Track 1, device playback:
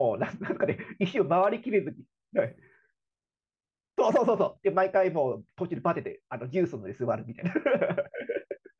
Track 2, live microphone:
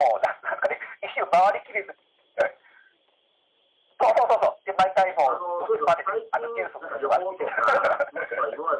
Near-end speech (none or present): present